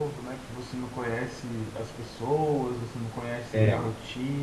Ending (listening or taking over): listening